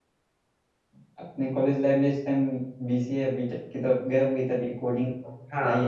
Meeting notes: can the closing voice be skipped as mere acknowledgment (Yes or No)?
No